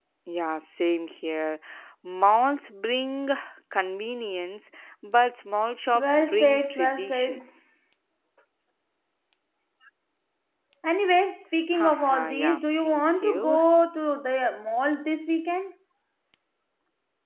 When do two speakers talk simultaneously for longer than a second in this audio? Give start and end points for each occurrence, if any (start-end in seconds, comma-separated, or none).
5.9-7.4, 11.7-13.6